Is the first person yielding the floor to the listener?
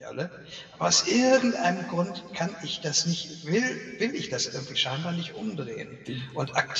No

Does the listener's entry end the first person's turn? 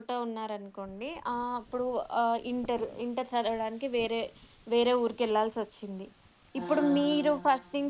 No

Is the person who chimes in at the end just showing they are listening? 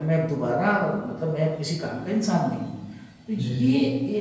Yes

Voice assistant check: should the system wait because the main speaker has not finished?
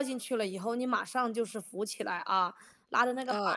Yes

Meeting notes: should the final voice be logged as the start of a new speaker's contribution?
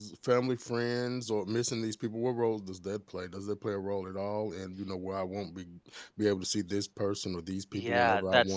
Yes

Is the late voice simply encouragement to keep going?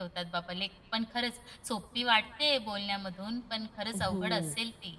No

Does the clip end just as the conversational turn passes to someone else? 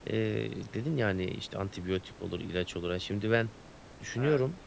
No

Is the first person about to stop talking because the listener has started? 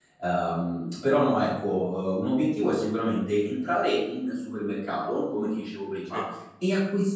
No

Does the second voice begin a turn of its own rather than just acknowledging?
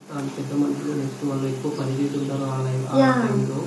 Yes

